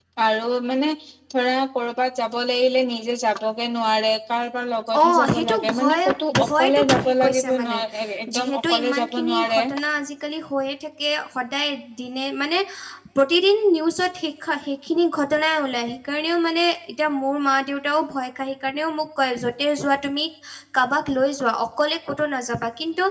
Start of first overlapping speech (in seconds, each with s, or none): 4.9 s